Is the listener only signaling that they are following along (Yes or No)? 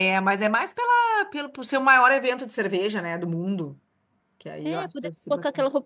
No